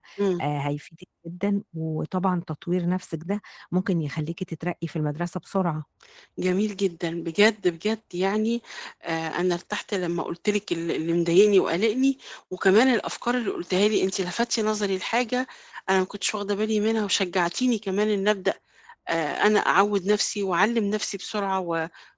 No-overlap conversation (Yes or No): Yes